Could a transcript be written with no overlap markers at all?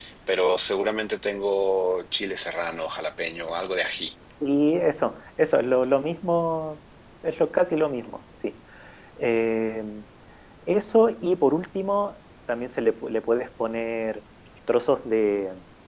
Yes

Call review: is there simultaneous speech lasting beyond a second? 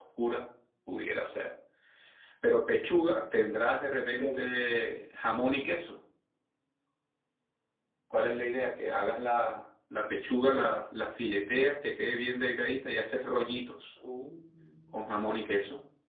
No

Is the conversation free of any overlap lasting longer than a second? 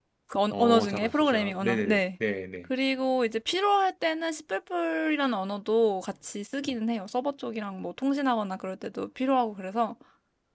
No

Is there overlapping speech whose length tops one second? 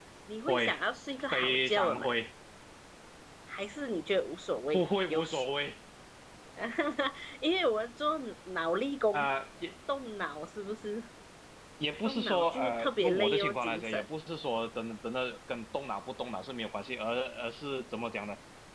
Yes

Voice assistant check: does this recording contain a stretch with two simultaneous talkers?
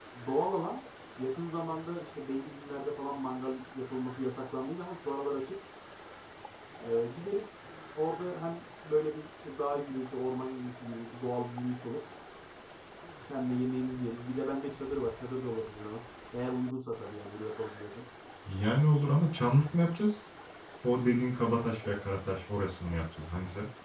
No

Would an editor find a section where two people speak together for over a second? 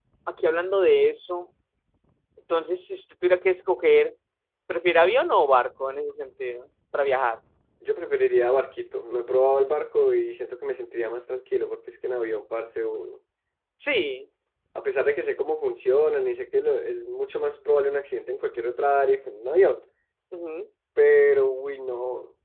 No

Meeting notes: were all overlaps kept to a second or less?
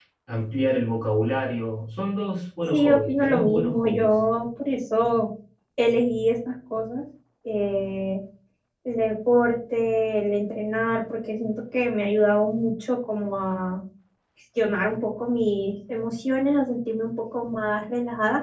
No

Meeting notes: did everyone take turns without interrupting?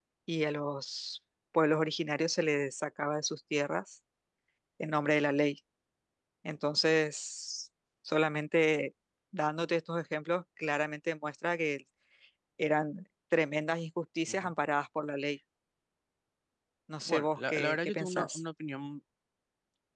No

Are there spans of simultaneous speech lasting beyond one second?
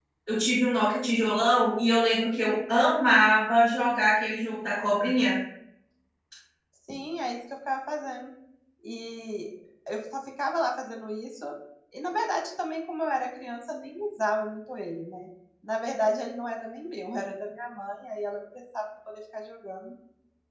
No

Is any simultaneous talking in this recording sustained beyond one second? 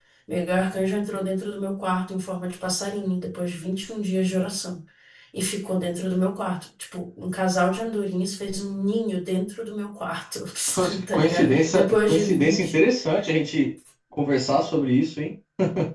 Yes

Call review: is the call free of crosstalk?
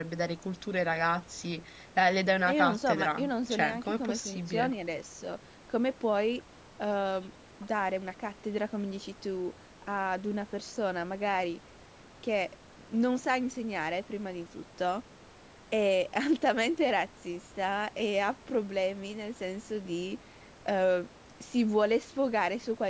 No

